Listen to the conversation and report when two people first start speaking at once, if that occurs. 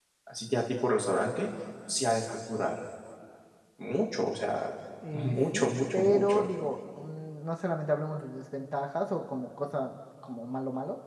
5.1 s

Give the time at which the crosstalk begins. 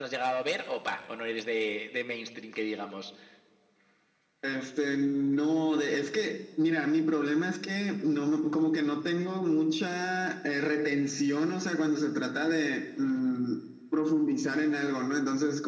none

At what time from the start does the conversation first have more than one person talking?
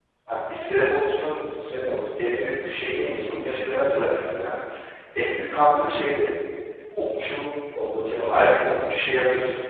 2.2 s

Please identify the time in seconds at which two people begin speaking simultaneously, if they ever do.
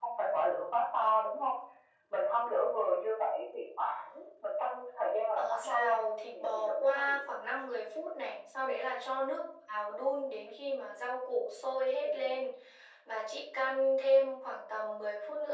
5.4 s

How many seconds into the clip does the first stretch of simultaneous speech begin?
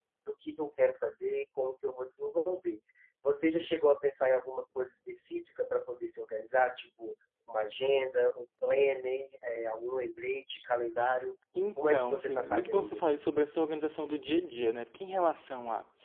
11.8 s

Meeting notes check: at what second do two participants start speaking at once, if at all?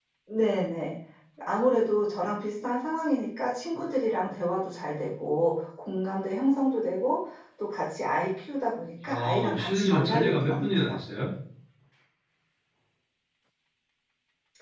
9.0 s

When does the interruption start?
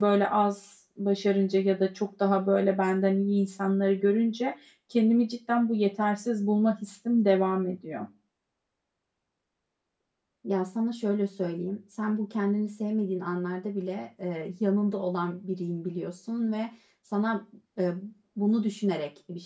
none

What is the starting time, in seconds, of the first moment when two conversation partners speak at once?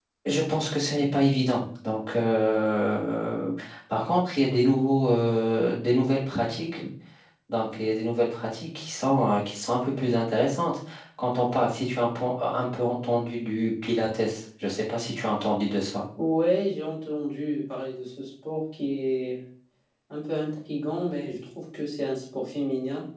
none

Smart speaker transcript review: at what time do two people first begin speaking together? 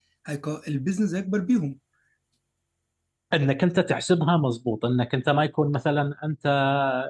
none

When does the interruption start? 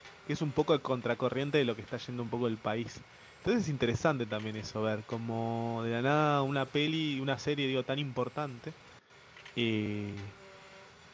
none

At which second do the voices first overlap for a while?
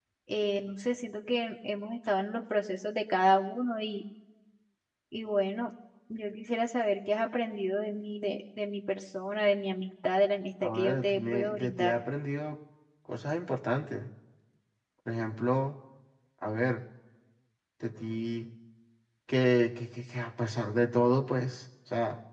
10.6 s

